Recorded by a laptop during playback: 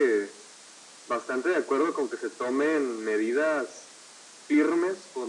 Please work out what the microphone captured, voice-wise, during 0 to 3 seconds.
echo only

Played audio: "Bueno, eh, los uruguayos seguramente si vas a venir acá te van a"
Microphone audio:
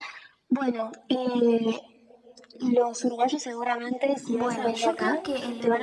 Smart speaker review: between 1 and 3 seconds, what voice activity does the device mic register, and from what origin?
echo only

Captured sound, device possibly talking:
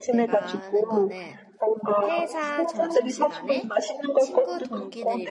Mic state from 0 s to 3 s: both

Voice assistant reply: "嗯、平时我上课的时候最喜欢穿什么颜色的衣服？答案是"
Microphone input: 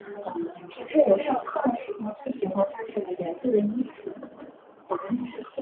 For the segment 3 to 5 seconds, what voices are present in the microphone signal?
echo only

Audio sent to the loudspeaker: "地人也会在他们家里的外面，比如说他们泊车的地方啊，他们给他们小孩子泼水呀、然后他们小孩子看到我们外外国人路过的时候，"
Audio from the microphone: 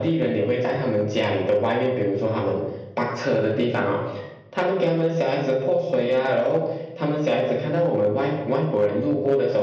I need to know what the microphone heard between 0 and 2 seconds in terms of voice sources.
echo only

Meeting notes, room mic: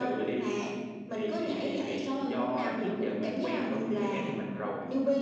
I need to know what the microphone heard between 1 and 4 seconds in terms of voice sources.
echo only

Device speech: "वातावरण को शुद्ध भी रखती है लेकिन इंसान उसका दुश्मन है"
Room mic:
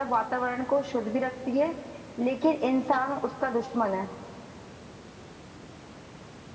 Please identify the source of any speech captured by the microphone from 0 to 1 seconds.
echo only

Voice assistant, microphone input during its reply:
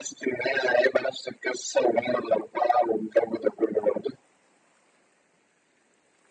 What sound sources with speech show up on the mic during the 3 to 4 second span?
echo only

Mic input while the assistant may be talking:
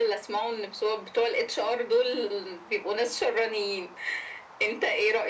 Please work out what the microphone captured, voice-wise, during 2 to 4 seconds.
echo only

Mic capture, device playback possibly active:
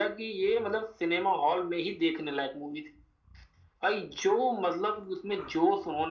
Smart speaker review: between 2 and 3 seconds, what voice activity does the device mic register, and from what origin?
echo only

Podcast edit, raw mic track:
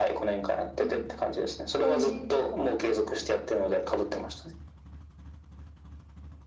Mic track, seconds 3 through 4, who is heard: echo only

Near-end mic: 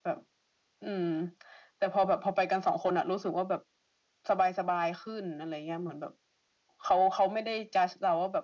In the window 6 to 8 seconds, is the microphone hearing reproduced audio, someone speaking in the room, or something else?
echo only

